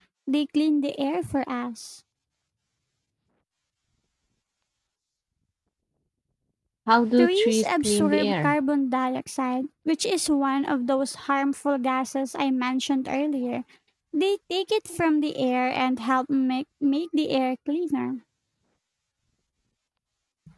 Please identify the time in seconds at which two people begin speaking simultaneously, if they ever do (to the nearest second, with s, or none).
7 s